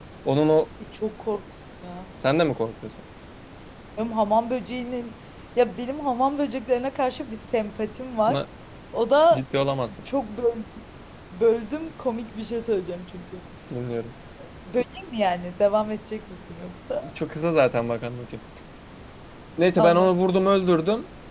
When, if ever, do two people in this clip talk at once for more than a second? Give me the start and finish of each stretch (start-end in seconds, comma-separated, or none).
none